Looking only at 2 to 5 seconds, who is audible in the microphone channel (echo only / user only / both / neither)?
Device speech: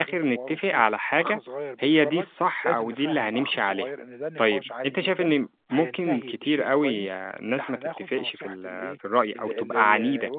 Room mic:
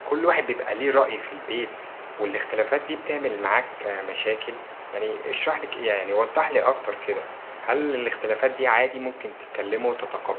user only